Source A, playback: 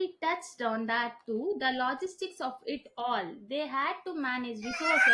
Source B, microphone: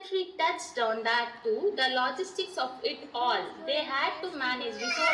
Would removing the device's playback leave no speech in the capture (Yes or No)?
No